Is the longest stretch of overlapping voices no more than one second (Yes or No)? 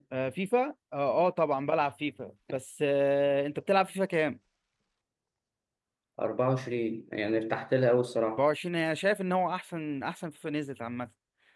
Yes